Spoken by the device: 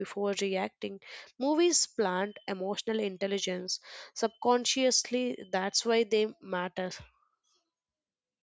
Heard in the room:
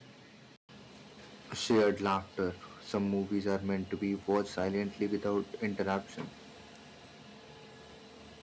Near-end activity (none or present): present